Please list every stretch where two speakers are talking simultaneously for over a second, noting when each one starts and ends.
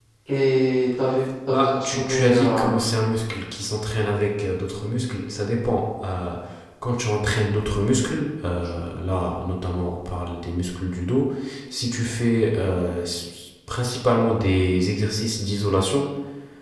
1.5-2.7

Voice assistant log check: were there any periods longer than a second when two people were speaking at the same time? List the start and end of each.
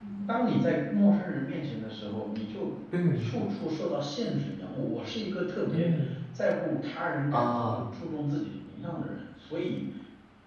none

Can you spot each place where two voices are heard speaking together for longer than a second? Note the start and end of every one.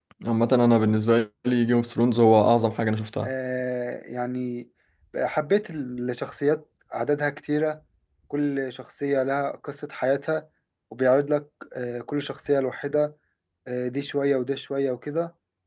none

